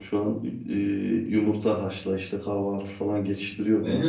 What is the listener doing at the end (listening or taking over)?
taking over